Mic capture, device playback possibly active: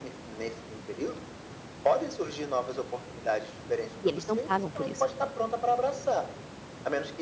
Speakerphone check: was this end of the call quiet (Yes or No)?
No